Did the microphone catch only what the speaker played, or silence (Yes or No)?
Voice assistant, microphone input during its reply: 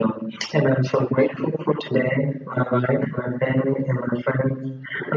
Yes